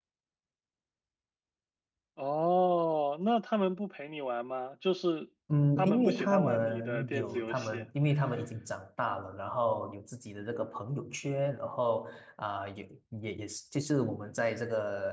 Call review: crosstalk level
present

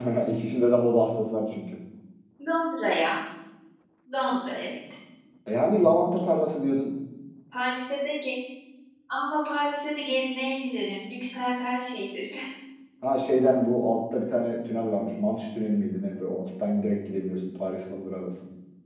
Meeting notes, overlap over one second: none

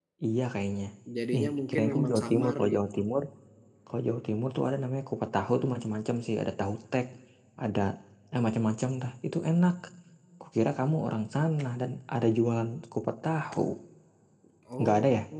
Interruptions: present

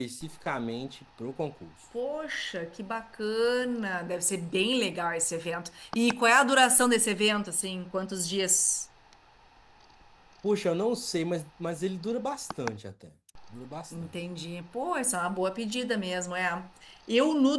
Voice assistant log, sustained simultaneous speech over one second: none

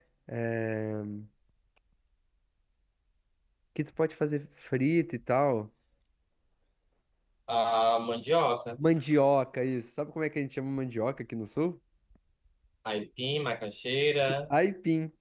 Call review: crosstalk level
none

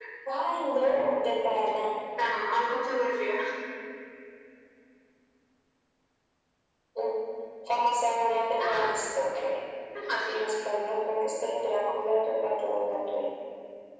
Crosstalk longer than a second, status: none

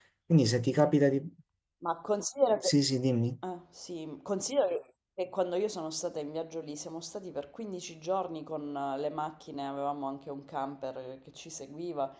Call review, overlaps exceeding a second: none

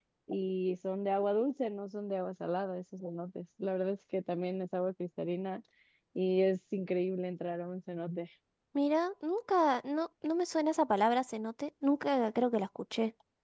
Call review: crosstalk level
none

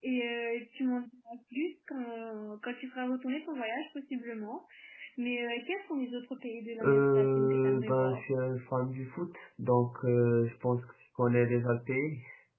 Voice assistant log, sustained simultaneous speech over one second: present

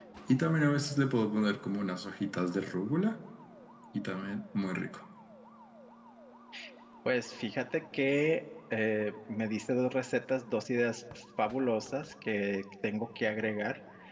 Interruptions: none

